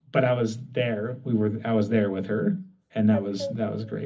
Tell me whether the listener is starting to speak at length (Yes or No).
Yes